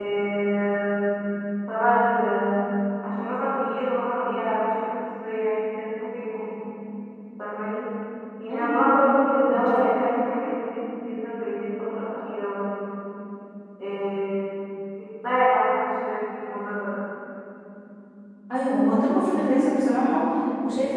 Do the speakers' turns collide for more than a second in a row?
No

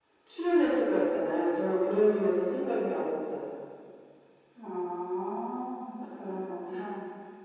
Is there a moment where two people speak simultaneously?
No

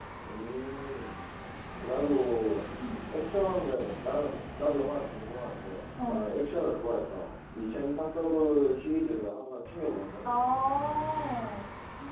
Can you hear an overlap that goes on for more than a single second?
No

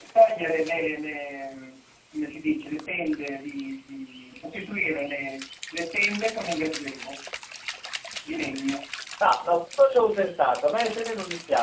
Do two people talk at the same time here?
No

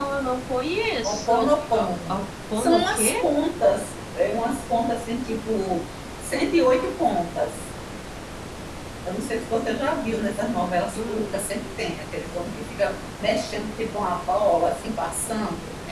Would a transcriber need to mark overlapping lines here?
Yes, from 1.0 s

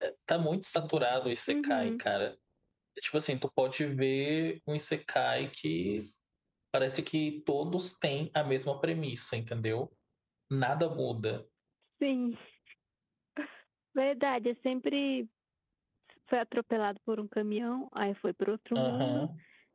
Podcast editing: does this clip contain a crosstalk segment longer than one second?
No

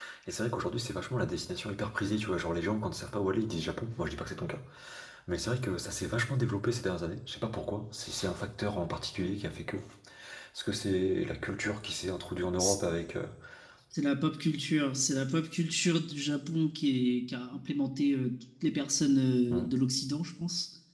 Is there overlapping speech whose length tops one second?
No

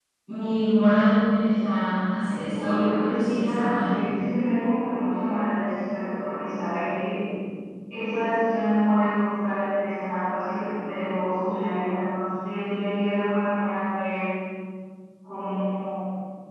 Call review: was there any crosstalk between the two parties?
Yes, from 2.5 s

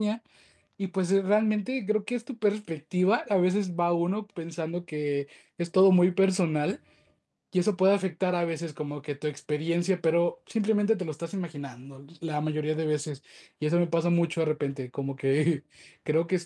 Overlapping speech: No

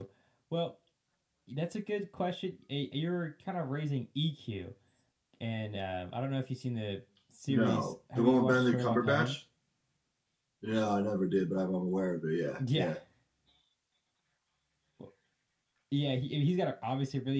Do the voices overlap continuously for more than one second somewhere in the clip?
Yes, from 7.5 s

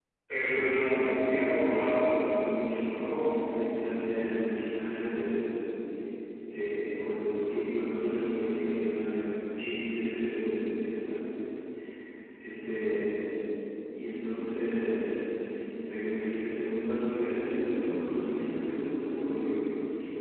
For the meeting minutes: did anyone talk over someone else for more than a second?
Yes, from 0.5 s

